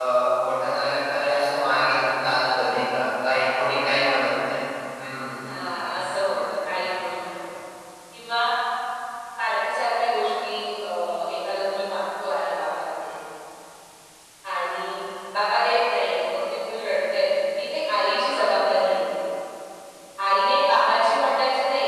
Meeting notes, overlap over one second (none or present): none